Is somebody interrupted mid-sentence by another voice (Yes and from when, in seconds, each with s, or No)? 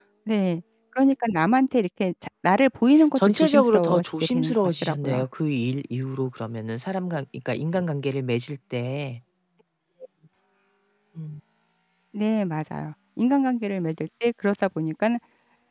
Yes, from 3.0 s